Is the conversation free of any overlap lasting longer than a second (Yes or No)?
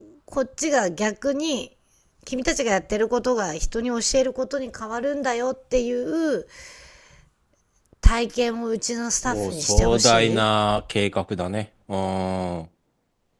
No